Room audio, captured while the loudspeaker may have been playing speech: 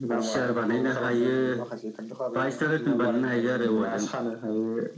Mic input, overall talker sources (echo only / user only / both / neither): both